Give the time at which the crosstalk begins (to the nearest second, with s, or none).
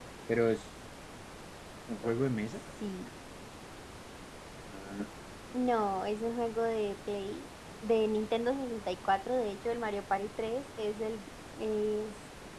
none